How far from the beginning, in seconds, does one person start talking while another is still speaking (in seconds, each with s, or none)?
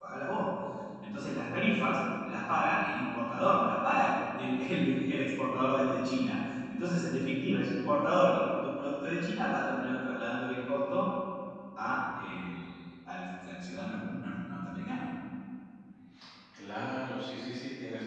none